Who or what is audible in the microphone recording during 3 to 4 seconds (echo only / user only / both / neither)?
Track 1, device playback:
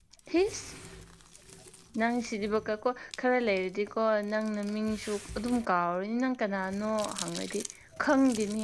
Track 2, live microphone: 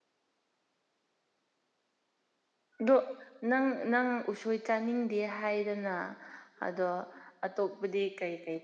user only